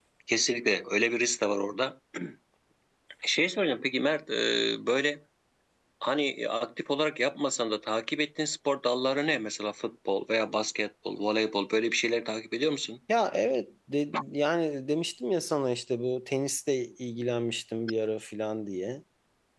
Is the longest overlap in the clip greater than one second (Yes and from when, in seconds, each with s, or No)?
No